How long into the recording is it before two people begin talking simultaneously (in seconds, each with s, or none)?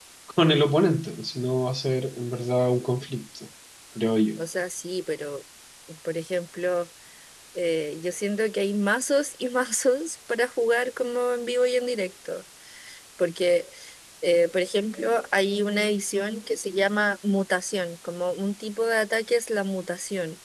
none